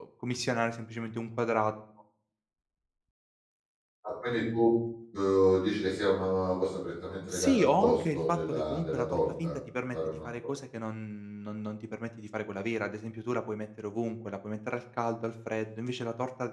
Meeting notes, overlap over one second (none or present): present